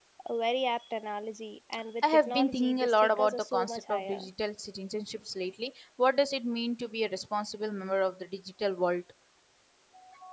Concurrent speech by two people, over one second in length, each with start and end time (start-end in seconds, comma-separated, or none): 2.1-4.3